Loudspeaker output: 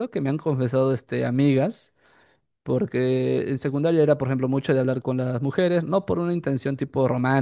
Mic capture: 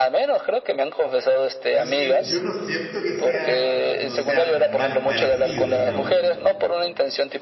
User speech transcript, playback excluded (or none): yo, sien- yo no siento que sea, no sea mal parecido, digamos,